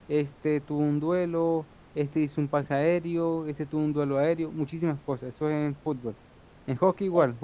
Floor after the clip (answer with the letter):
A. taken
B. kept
B